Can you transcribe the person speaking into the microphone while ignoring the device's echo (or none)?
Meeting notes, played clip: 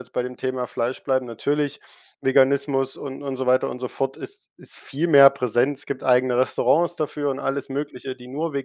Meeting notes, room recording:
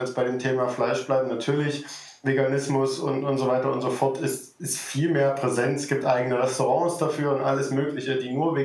none